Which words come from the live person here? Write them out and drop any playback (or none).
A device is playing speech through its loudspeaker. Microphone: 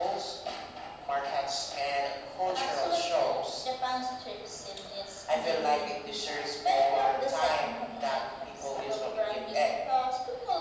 none